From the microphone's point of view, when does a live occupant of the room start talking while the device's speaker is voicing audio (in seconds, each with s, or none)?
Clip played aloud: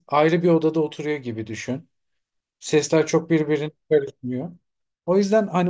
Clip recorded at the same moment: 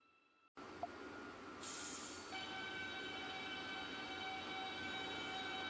none